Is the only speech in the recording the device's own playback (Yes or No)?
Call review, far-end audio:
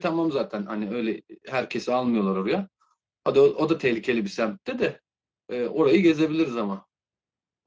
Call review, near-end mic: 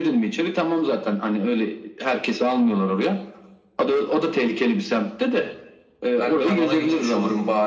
No